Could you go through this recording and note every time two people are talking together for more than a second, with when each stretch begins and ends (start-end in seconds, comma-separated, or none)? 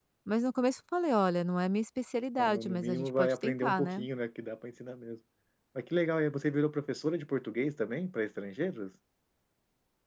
2.4-4.0